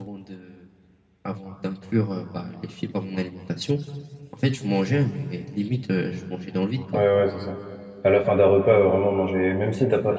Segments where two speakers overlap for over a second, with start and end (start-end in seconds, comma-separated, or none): none